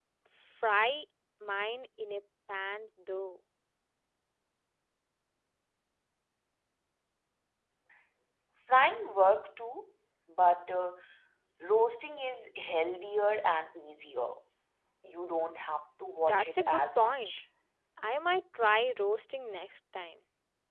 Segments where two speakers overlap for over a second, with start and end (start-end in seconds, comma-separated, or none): 16.2-17.4